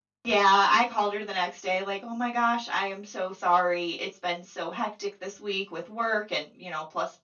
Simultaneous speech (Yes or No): No